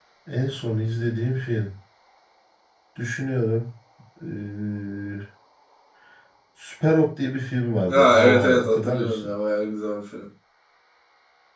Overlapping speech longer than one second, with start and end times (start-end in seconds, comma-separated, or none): 7.9-9.3